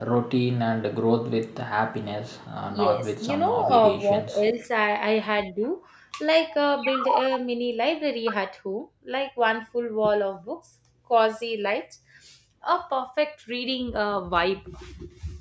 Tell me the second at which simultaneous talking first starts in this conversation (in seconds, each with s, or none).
2.7 s